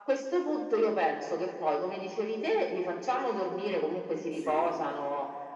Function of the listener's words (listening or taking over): listening